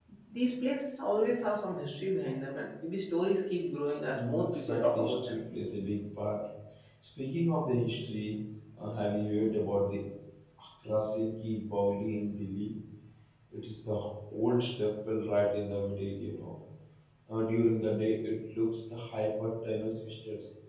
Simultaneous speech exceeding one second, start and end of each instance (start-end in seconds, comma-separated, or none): 4.1-5.3